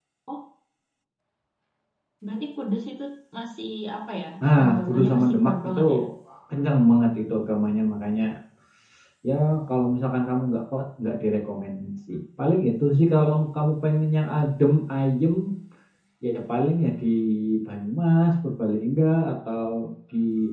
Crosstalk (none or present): present